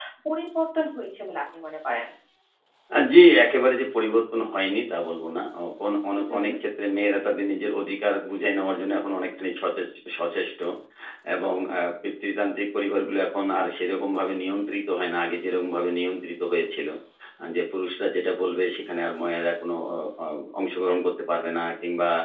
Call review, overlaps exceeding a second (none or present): none